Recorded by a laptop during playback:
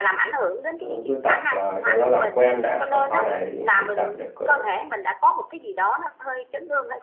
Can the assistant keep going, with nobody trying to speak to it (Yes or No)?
No